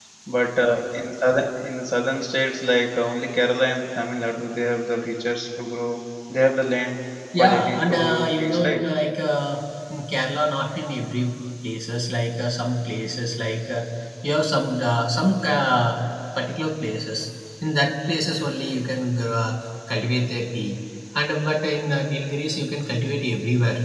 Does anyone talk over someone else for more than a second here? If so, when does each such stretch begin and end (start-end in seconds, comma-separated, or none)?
7.4-8.8